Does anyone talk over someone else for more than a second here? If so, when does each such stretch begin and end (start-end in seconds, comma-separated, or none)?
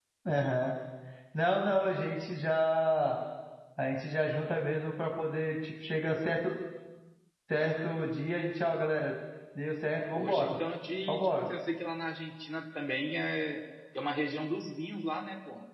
none